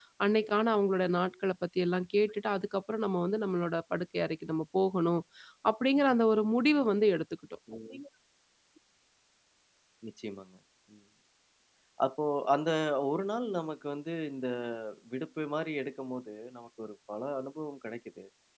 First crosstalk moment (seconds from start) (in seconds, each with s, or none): none